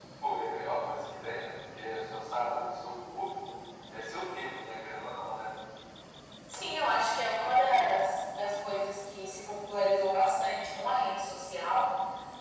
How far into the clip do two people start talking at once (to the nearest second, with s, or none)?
none